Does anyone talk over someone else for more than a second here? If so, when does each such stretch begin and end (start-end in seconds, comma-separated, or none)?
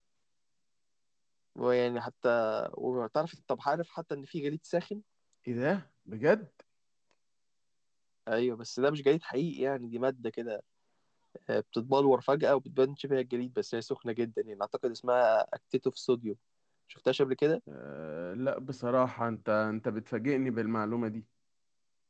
none